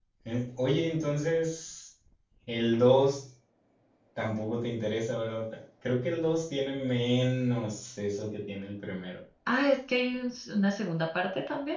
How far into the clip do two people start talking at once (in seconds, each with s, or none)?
none